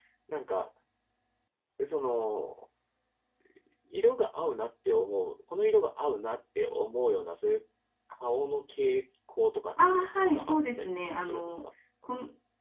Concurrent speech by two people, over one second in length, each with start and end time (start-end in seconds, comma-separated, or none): 10.3-11.7